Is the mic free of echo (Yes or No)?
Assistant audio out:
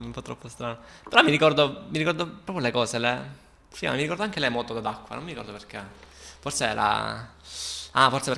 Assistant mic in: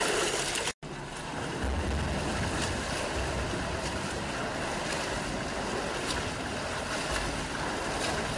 Yes